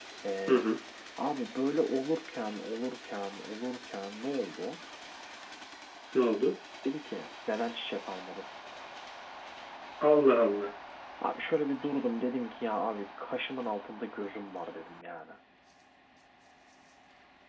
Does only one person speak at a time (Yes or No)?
Yes